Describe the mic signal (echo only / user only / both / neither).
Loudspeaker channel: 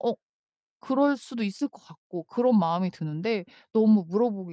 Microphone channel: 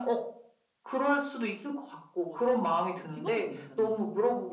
both